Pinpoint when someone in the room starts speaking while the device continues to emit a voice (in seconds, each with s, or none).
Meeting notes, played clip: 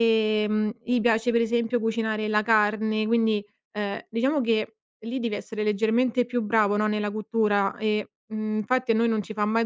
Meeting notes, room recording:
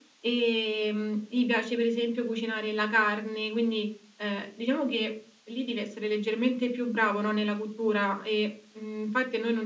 none